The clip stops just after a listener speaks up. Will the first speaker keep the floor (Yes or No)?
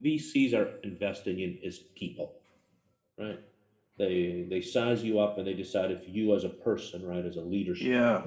Yes